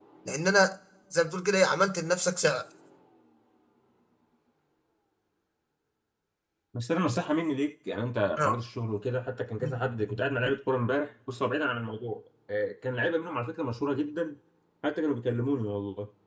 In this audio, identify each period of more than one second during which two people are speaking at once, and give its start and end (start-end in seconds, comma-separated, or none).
none